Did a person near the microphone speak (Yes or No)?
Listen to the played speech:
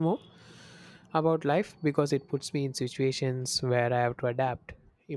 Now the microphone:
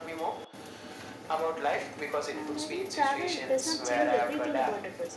Yes